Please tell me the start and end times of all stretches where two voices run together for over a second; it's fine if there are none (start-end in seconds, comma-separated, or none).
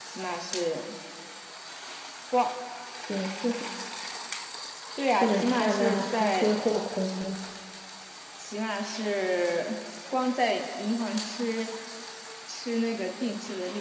5.2-6.5